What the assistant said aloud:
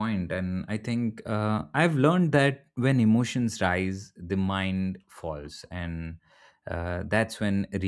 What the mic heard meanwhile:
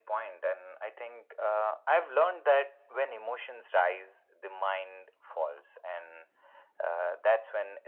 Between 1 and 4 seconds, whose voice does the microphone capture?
echo only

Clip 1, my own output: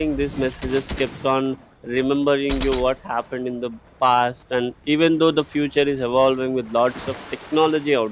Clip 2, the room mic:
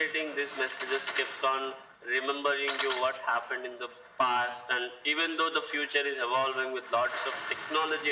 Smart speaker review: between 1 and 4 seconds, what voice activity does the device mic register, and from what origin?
echo only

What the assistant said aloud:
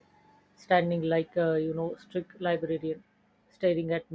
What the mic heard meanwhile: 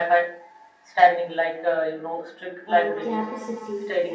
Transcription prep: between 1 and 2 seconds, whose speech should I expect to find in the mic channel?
echo only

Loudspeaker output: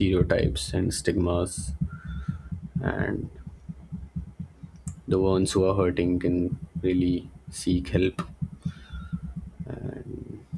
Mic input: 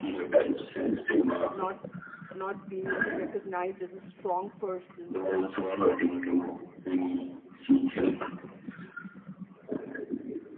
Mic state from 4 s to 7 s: both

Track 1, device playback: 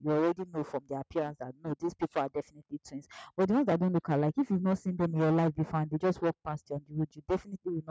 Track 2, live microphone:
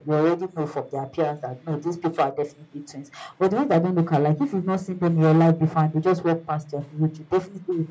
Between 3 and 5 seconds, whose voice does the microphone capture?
echo only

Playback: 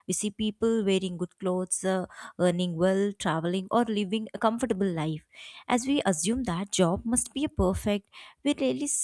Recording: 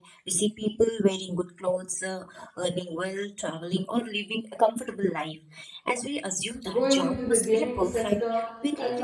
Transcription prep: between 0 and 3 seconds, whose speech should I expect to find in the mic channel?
echo only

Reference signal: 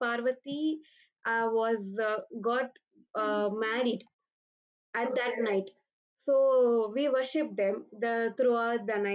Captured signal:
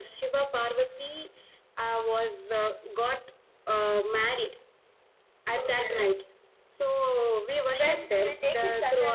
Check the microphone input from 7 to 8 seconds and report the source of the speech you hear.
both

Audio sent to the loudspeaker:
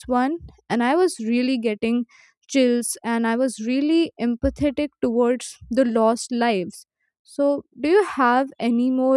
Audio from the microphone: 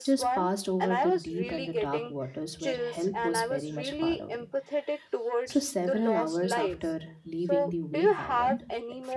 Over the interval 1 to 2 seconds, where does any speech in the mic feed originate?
both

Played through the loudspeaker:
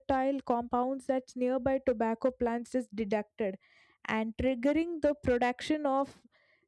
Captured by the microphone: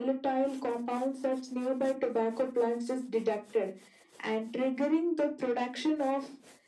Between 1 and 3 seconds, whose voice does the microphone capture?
echo only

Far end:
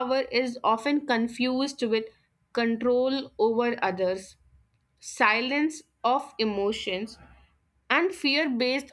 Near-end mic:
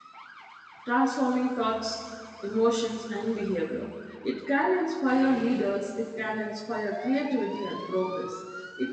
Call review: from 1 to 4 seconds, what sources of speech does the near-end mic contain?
user only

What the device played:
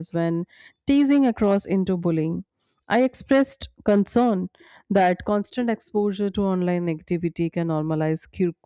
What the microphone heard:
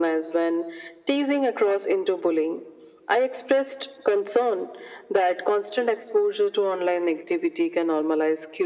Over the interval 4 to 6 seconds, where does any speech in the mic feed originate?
echo only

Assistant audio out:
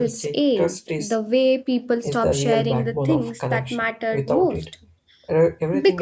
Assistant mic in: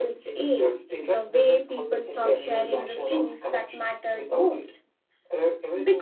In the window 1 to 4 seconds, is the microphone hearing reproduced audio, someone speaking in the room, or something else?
both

